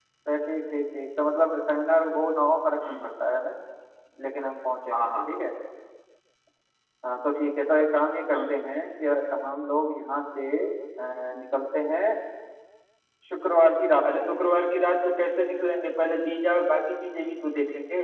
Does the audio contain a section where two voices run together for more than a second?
No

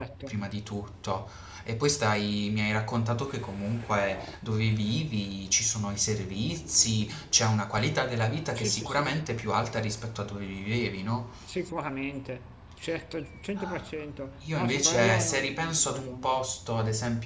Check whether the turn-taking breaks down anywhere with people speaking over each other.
Yes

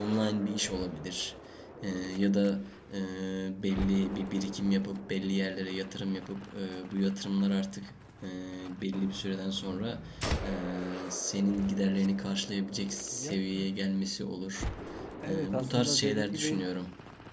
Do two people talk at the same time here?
Yes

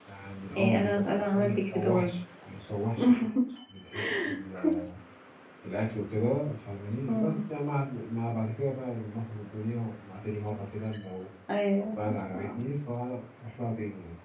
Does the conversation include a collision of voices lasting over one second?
Yes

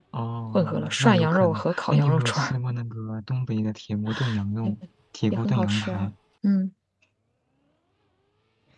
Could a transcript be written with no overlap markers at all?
No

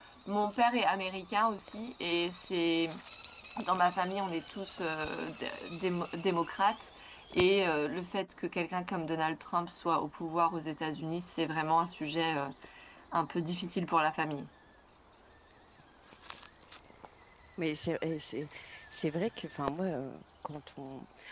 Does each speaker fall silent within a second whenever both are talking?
Yes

